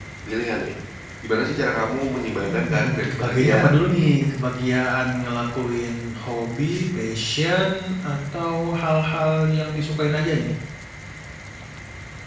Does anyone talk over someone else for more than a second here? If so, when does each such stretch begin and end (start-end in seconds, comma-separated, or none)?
2.4-3.7